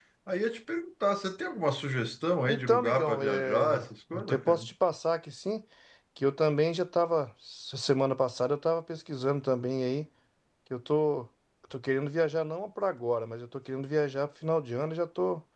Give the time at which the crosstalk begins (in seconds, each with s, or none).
2.5 s